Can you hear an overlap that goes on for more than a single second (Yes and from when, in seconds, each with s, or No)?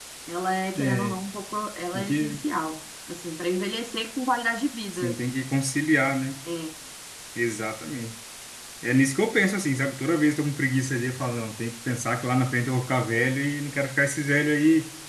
No